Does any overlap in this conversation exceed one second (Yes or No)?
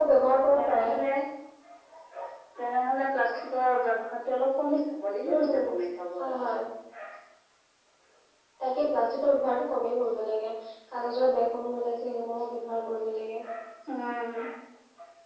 No